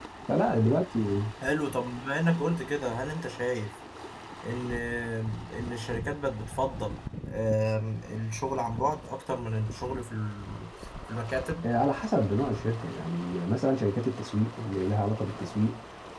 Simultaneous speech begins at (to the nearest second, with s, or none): none